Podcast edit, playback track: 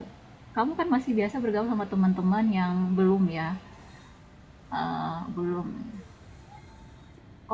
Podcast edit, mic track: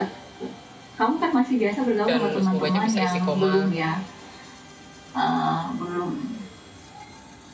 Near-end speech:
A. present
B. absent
A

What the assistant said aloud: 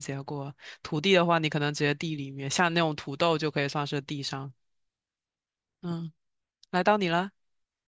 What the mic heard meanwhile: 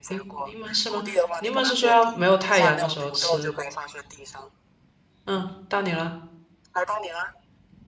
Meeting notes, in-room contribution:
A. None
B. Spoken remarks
B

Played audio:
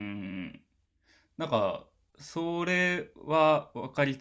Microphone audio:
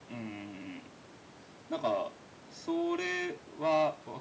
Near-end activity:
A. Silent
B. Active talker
A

